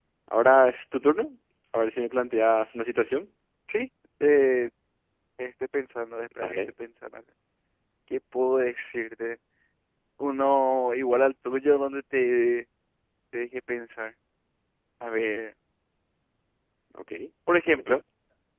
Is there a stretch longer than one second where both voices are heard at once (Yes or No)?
No